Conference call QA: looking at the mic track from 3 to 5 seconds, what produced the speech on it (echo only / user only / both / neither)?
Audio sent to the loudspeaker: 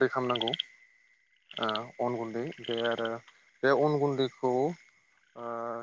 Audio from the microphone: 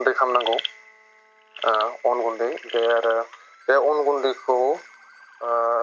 echo only